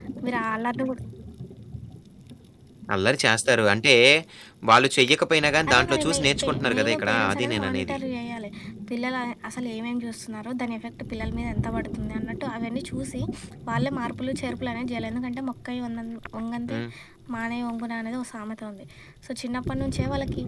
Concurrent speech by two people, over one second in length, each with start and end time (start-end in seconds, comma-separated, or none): 5.7-8.0